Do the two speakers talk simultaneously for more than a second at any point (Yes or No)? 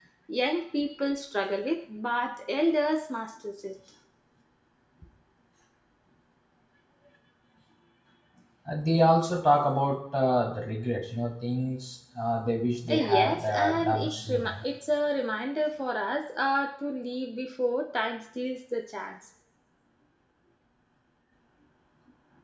Yes